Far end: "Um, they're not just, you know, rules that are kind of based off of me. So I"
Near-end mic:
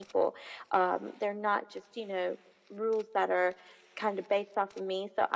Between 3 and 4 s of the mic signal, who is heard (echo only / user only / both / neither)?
echo only